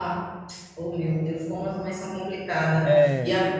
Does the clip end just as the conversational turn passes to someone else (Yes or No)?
No